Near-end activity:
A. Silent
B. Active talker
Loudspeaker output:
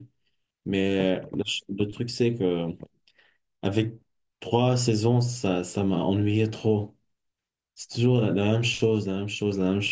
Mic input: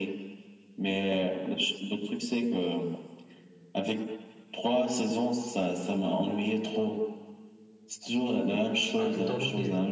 B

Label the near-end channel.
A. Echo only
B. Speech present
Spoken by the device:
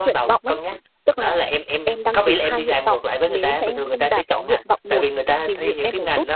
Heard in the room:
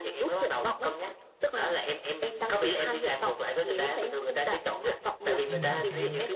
B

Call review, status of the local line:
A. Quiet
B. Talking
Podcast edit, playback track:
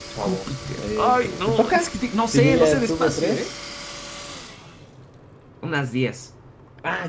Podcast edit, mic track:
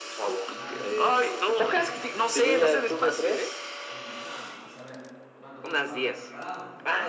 B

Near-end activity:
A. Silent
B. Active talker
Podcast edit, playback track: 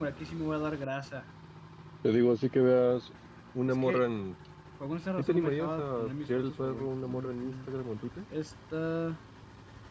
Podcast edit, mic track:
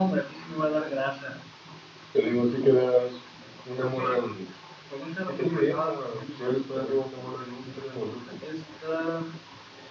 A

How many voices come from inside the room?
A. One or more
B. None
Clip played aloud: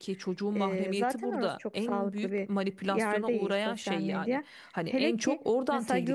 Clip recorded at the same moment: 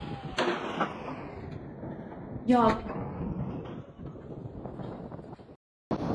A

